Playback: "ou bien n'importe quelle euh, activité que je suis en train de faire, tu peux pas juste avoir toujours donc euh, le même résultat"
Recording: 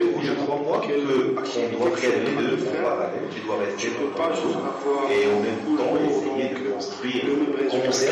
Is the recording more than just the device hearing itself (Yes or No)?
Yes